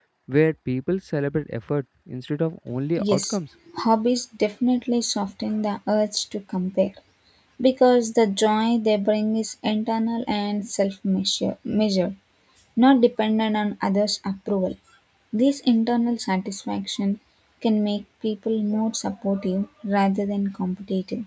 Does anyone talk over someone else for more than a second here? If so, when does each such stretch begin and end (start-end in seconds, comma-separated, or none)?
none